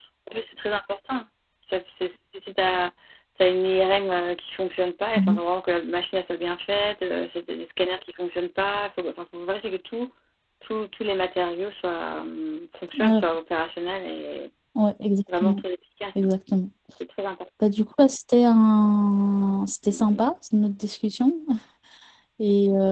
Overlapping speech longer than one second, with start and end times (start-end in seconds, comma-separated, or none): none